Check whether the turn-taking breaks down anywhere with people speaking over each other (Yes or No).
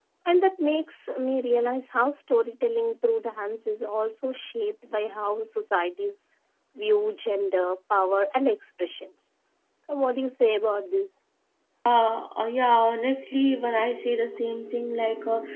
No